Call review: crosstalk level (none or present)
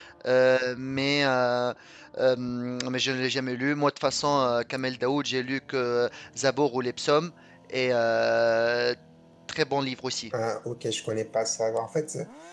none